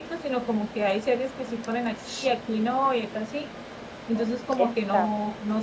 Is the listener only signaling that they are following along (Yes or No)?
Yes